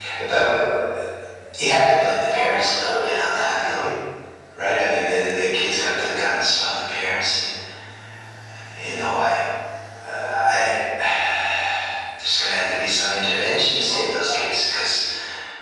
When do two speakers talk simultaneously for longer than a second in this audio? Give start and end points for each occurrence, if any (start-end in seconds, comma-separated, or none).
2.3-3.9